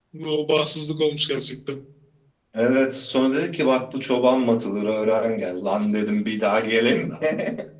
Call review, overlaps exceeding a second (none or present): none